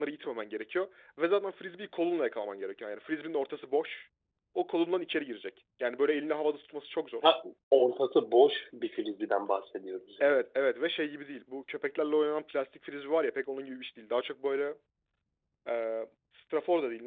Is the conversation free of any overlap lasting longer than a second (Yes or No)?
Yes